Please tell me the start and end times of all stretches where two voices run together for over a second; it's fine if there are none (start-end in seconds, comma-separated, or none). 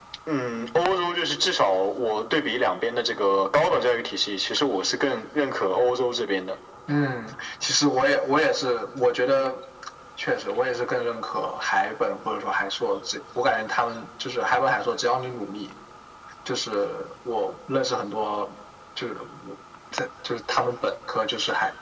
none